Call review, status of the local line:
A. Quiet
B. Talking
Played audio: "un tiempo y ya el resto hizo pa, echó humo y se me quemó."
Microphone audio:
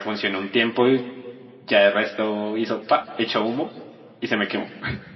A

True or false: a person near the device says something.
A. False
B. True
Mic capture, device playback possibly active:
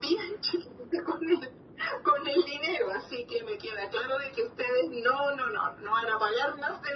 A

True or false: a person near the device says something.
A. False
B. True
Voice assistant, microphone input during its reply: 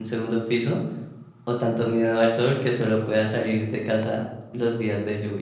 B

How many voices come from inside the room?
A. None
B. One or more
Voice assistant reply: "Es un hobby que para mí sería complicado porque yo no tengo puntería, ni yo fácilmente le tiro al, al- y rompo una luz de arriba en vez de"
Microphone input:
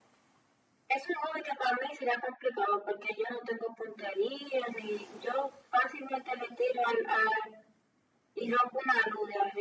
A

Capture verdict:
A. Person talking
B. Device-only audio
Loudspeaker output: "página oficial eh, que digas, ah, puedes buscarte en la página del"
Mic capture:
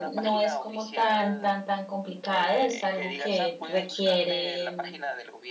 A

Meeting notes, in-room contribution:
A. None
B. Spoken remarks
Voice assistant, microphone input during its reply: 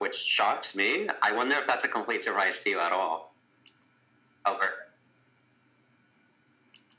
A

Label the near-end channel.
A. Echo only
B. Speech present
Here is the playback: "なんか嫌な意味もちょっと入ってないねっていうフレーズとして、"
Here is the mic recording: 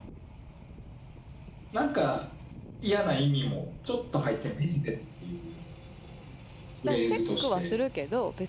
B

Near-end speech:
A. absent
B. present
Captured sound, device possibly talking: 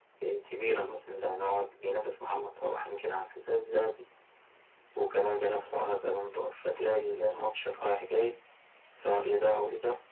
B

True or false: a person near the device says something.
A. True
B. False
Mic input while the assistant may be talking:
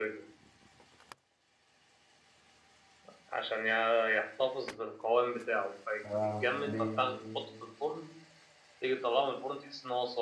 A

